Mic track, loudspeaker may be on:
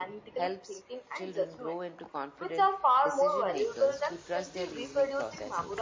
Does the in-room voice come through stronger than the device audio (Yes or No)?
No